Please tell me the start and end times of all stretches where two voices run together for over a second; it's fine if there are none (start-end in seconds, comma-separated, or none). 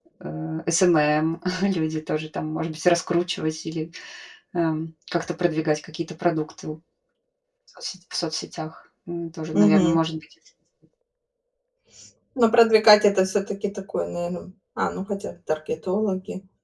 none